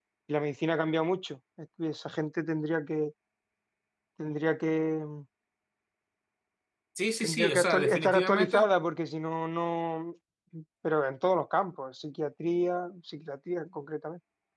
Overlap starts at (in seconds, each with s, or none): 7.2 s